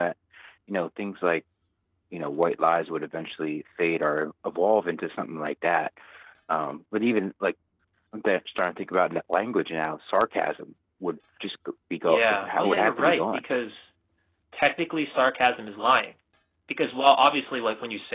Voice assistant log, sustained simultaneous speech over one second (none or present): present